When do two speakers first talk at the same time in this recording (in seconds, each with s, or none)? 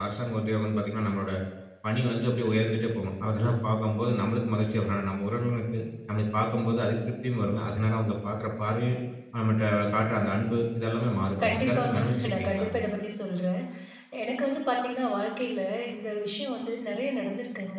11.4 s